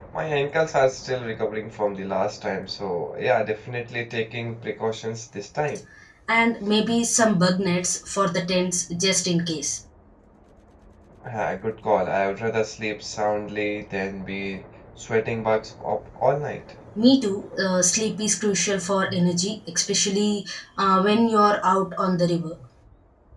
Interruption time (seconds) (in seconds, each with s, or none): none